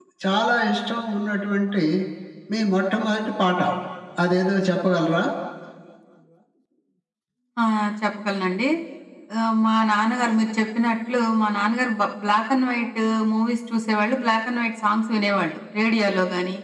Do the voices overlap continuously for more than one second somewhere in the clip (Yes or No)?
No